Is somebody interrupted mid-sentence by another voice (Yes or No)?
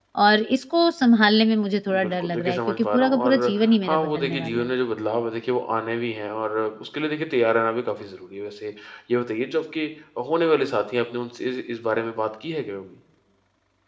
Yes